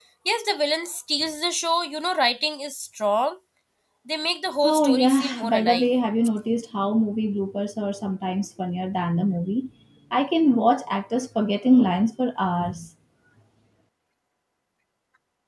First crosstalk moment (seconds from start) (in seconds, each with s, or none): 4.6 s